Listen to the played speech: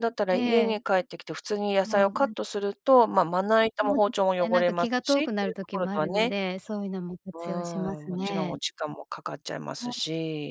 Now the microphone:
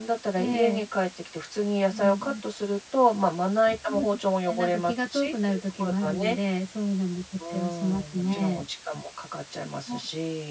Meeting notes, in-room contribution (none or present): none